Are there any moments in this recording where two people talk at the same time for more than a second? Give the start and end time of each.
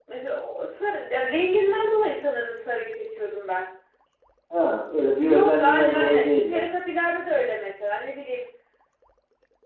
5.2-6.7

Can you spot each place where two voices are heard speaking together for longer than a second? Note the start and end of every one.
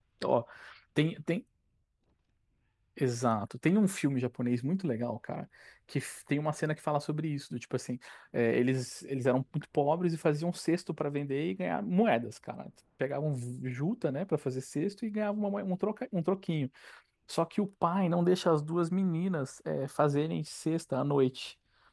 none

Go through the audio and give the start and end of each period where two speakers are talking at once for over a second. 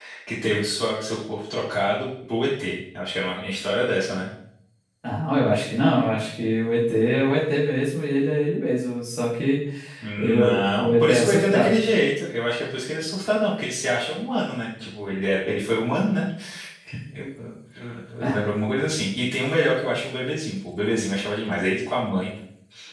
10.2-11.8

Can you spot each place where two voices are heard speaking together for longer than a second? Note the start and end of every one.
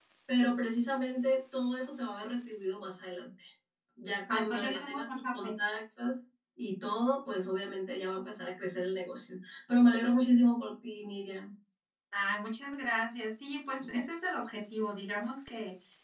4.3-5.5

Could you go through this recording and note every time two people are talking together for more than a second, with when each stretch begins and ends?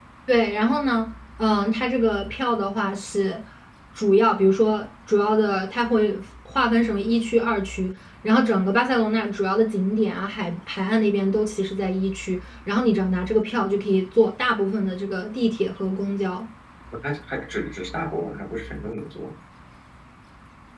none

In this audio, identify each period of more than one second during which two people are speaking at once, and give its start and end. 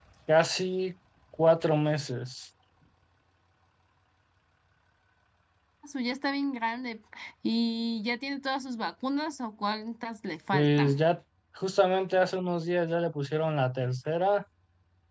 none

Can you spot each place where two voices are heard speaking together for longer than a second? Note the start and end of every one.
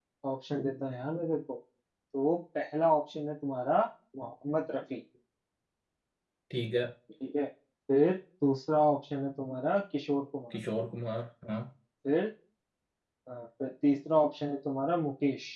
none

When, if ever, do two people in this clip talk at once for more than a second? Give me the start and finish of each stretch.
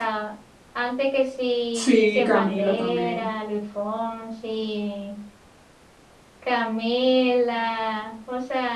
1.7-3.3

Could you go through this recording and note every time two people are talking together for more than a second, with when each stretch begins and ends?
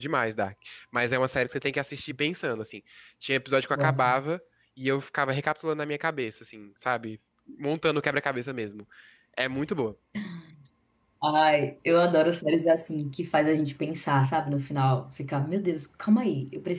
none

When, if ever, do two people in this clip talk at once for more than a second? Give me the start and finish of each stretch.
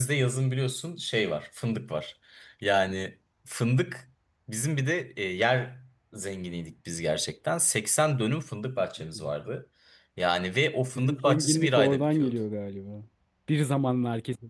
11.0-12.4

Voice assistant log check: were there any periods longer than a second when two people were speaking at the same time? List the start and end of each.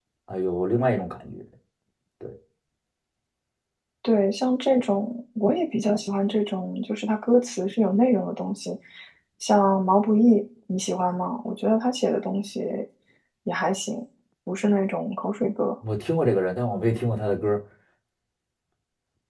none

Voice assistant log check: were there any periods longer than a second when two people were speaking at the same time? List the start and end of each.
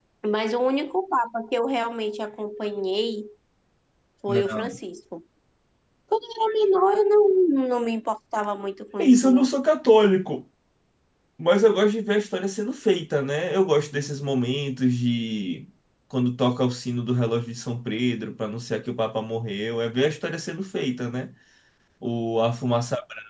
none

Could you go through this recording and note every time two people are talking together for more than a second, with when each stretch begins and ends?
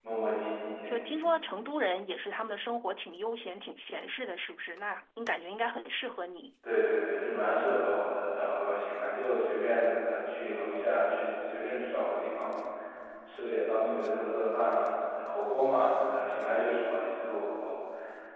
none

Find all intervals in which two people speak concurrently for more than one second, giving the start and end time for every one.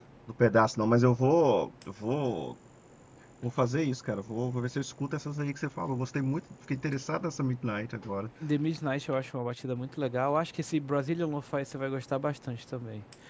none

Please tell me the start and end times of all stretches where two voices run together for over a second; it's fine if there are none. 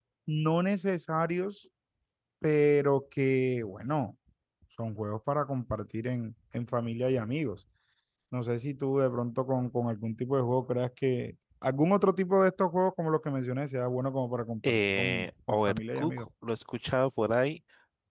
14.7-16.3

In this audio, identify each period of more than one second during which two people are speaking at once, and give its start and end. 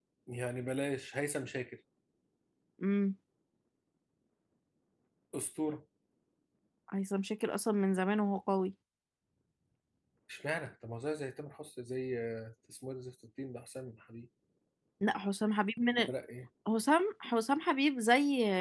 none

